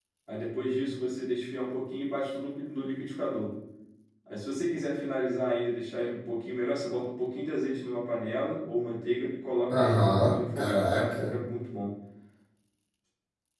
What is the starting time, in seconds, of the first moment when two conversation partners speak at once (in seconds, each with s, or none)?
9.7 s